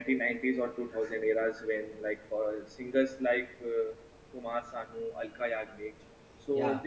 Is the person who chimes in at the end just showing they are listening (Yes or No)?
Yes